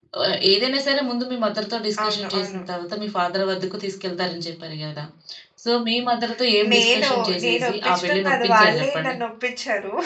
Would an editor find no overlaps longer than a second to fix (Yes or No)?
No